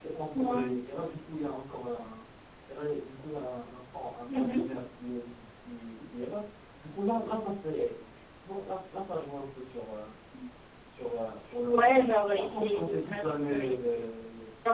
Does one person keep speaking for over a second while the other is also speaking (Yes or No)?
Yes